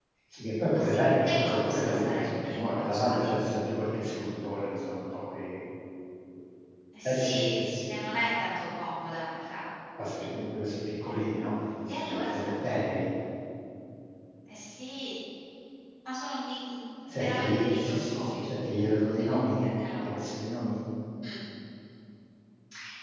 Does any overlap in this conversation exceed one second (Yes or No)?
Yes